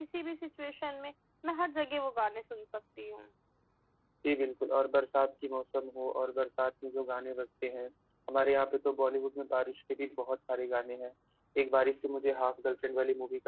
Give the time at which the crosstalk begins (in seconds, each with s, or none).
none